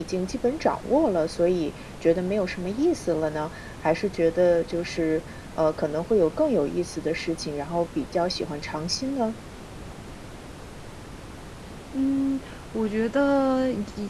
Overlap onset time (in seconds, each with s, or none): none